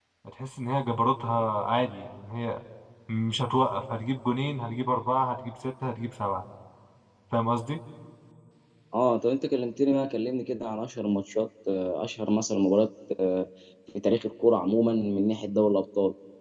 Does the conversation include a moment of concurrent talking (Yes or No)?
No